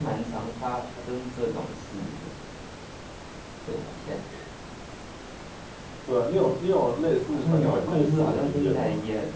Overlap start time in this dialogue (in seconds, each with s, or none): 7.2 s